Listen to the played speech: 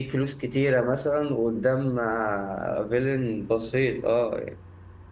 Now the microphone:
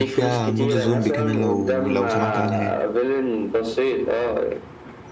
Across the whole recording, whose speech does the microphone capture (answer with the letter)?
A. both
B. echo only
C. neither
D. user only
A